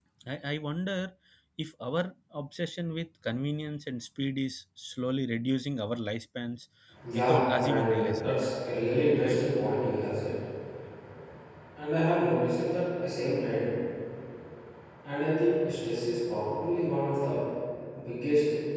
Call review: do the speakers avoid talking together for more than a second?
No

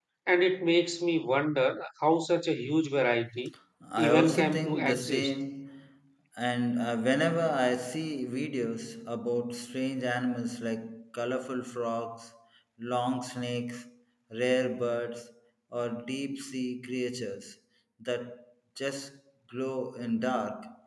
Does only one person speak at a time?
No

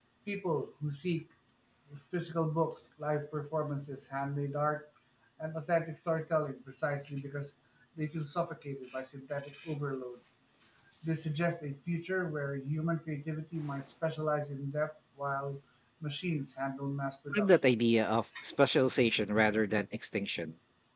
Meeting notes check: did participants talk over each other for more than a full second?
No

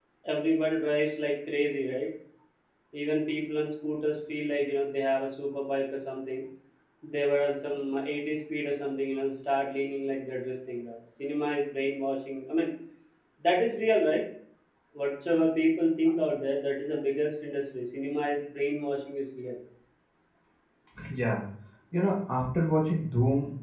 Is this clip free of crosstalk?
Yes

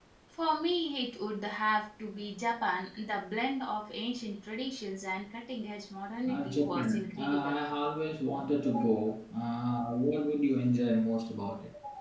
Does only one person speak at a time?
No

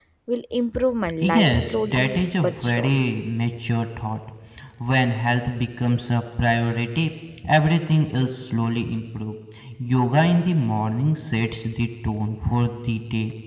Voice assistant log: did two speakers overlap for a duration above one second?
Yes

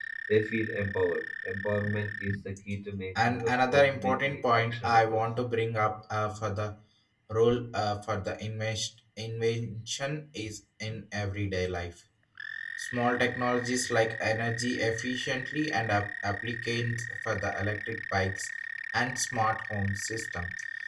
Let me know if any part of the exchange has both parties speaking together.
Yes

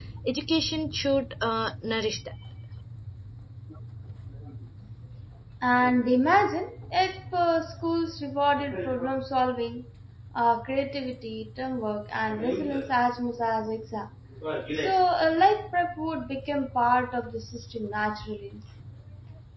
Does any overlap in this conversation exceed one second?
No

